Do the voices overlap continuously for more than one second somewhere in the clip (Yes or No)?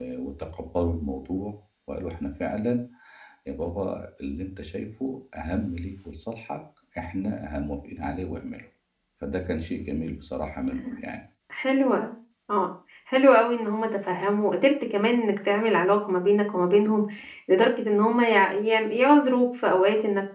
No